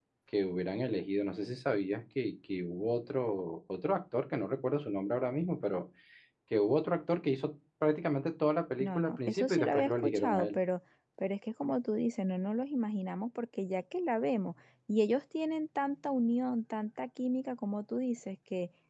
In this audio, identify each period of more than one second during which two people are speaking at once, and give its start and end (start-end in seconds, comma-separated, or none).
8.8-10.5